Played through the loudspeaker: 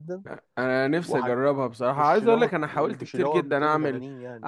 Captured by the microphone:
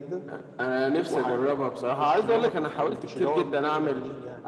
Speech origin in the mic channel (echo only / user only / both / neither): echo only